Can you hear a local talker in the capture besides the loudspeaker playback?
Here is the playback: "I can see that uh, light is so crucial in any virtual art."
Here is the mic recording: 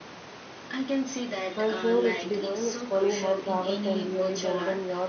Yes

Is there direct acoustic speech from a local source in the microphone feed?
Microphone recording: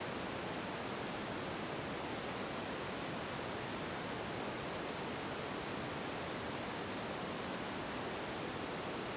No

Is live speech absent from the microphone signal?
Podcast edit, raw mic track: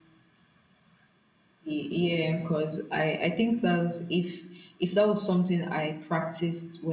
Yes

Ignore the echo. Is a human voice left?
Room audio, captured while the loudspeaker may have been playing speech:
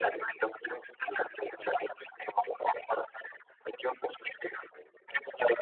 No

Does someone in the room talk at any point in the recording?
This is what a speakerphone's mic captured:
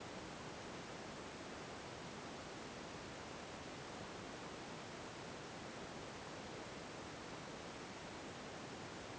No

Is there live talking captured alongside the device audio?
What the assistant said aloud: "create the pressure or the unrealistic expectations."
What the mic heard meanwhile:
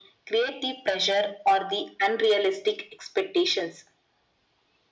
No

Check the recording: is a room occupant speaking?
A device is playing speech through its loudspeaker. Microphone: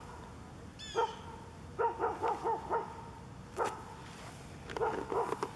No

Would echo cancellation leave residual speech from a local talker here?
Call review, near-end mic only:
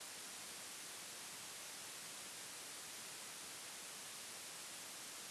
No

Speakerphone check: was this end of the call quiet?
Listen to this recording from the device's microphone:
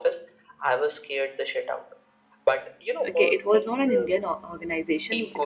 No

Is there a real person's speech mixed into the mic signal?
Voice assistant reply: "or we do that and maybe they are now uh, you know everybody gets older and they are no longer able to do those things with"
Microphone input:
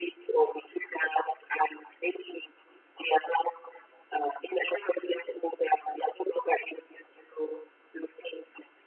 No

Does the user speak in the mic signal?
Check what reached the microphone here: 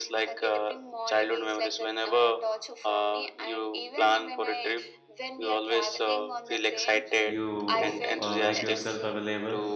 Yes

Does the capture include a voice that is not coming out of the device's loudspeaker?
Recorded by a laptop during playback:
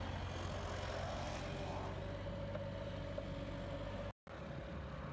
No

